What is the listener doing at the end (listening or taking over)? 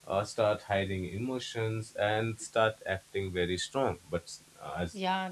taking over